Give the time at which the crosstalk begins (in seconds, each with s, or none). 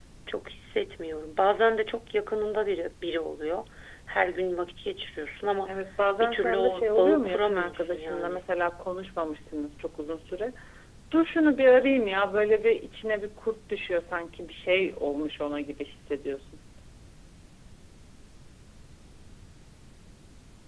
6.2 s